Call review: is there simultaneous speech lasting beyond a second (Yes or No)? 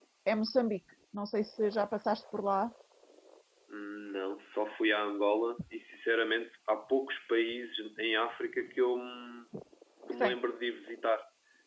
No